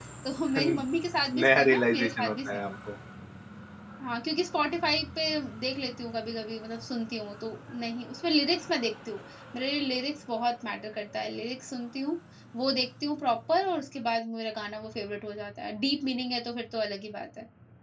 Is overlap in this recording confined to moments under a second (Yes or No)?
No